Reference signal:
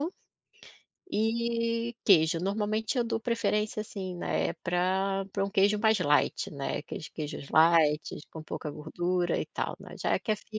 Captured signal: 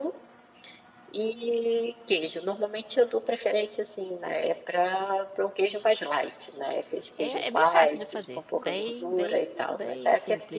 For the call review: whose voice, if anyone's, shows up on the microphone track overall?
both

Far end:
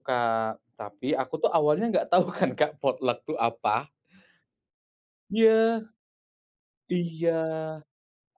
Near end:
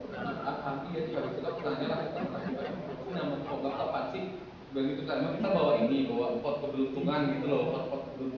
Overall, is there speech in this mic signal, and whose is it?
both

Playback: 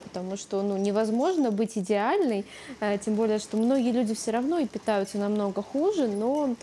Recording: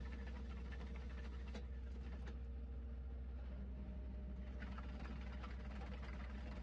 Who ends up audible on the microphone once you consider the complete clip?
neither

